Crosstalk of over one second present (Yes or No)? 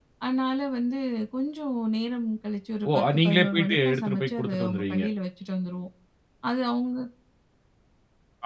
Yes